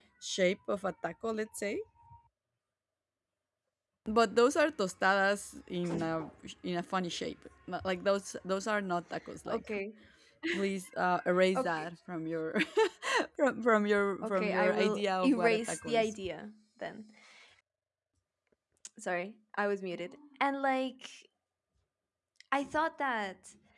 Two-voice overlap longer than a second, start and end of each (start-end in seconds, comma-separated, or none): 14.2-16.1